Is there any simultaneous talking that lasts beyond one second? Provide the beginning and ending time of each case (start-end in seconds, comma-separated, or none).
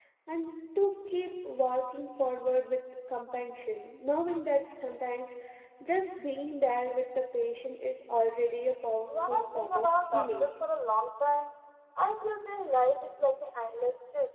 9.3-10.5